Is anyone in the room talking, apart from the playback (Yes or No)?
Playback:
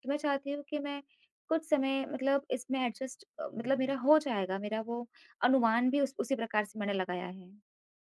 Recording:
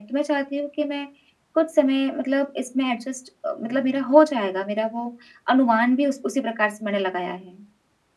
No